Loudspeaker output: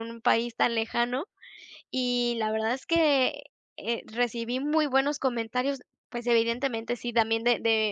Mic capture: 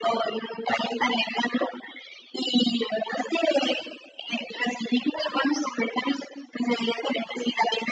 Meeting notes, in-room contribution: none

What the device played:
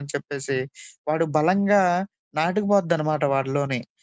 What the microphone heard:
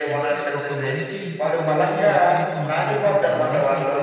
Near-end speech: present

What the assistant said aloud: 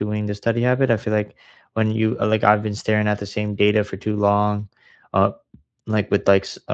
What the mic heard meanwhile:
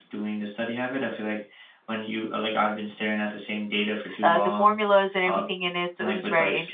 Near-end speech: present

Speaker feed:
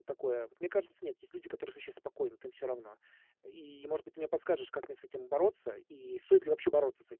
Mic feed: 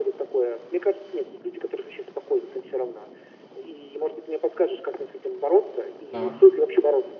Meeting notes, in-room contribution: present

